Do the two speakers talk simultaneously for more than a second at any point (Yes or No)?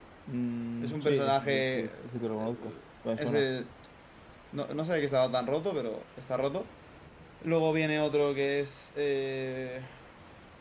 Yes